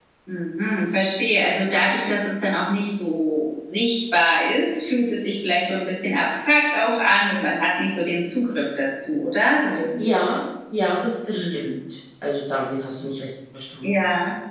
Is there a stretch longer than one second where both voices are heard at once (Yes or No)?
No